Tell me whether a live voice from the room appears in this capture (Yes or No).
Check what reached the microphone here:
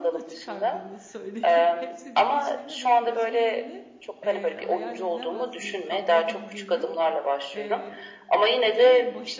Yes